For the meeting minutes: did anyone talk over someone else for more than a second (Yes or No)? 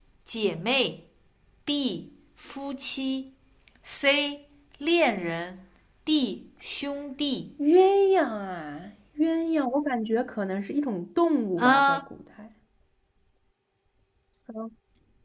No